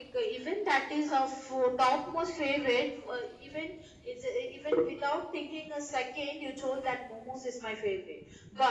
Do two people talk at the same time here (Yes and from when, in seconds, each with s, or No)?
No